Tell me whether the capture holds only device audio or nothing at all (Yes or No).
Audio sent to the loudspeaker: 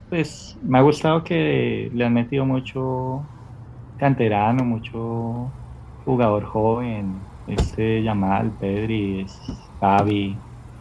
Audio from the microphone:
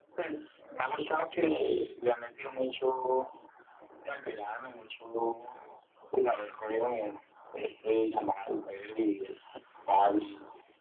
Yes